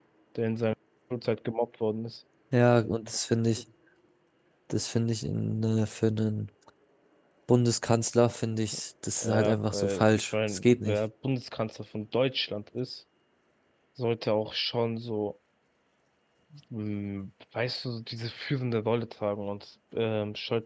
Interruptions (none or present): present